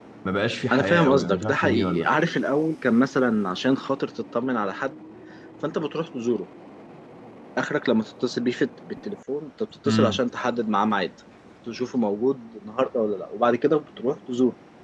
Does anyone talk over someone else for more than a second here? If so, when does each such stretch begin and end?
0.7-2.1

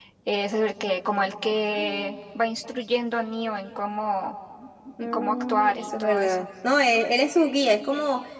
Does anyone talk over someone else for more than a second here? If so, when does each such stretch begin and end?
5.0-6.4

